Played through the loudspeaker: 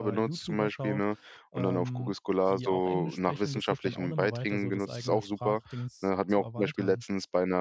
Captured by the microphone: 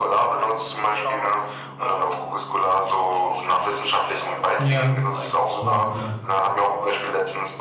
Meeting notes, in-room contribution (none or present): present